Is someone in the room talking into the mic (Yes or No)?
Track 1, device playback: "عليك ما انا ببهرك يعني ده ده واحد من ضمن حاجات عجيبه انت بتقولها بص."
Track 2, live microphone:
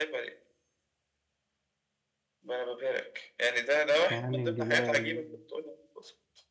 Yes